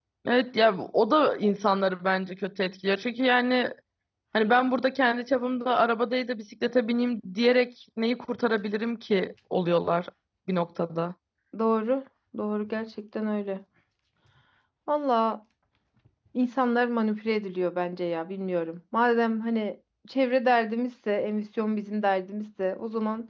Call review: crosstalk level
none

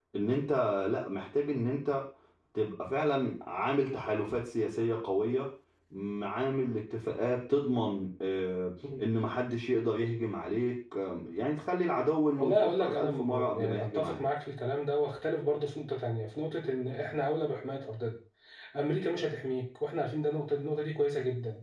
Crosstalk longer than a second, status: present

